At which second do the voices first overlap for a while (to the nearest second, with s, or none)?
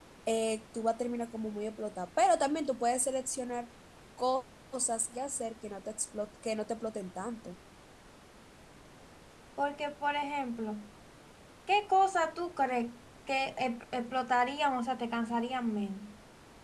none